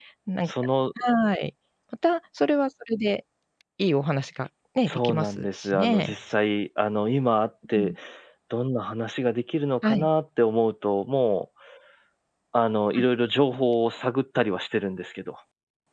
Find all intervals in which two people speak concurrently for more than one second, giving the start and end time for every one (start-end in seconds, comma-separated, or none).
4.9-6.1